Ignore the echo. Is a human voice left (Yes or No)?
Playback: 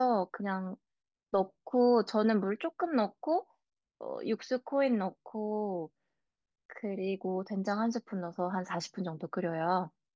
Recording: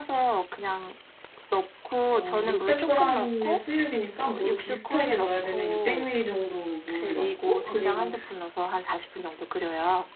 Yes